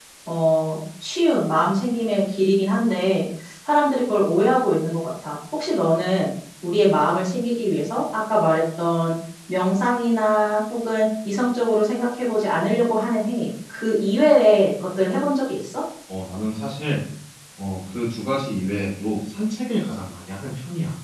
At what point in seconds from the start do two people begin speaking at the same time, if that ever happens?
none

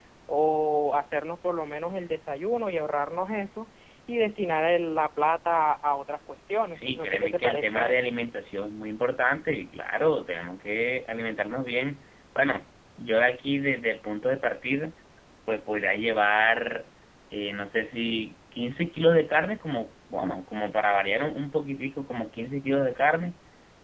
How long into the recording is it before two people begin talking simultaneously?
7 s

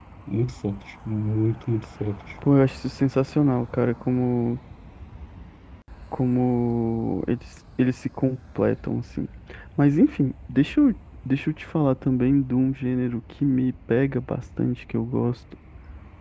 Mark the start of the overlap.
none

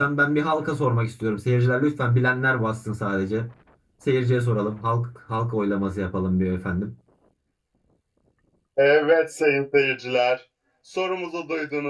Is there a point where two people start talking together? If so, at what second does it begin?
none

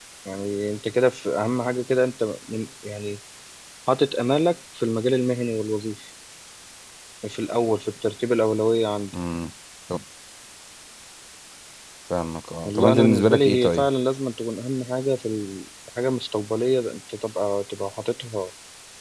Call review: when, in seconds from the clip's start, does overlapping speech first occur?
13 s

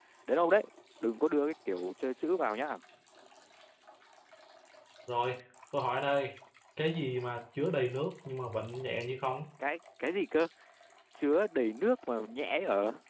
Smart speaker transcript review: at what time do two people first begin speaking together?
none

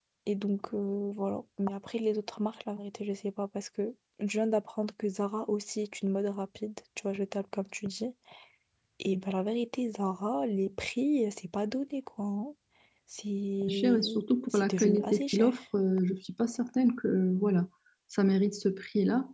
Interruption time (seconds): 14 s

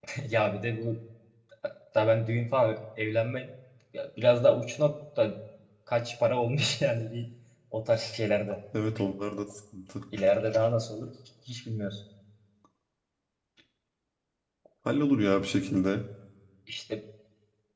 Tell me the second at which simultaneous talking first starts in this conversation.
none

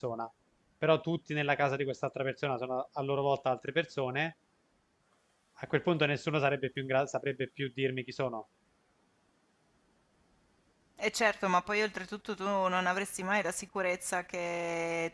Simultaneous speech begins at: none

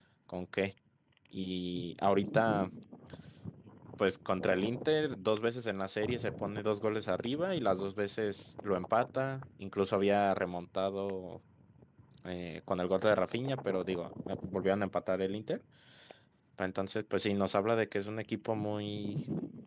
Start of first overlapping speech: none

